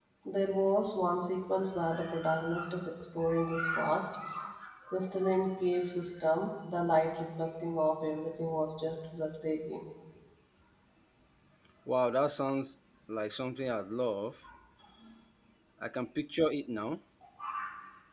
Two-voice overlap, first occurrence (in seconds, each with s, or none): none